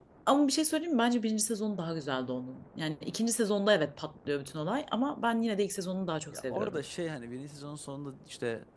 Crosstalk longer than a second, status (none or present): none